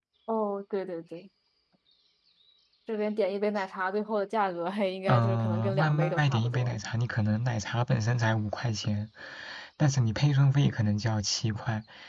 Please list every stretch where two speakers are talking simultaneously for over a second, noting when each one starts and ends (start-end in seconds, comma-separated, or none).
5.1-6.8